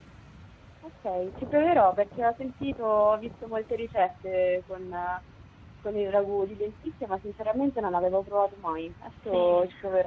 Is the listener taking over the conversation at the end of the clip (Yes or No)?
Yes